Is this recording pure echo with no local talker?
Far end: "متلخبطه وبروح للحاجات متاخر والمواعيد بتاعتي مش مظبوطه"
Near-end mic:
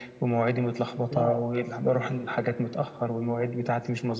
No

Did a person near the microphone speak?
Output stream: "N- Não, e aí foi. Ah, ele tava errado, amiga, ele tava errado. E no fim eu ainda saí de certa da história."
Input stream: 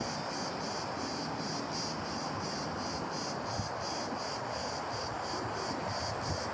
No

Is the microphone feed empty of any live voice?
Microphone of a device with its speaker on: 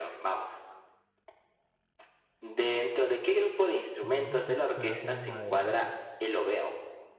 No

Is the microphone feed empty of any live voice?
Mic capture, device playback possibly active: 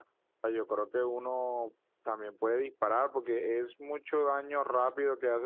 No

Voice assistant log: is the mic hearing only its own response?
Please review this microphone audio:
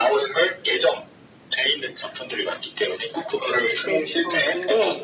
No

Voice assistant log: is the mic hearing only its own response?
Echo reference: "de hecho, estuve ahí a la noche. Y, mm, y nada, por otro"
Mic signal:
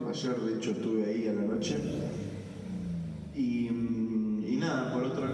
Yes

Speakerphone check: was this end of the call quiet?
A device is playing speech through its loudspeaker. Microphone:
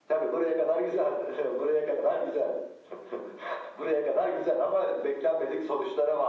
Yes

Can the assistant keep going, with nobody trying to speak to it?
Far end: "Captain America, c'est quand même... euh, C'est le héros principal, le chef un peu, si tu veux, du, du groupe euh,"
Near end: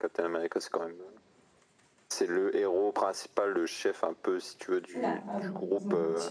No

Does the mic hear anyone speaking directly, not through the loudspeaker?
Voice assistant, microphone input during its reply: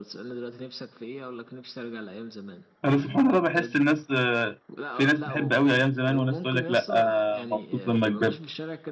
Yes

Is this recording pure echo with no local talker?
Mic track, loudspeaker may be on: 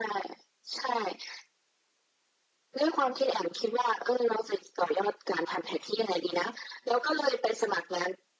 Yes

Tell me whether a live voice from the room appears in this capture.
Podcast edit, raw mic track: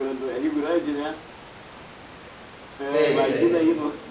Yes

